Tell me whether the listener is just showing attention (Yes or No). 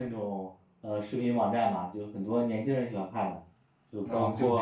No